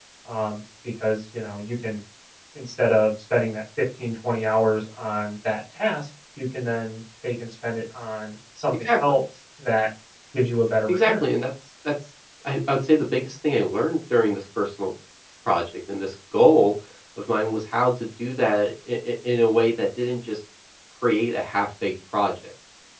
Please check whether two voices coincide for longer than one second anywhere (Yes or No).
No